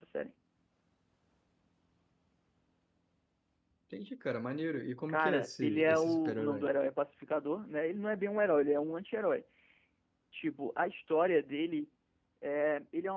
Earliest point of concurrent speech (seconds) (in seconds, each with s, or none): 5.1 s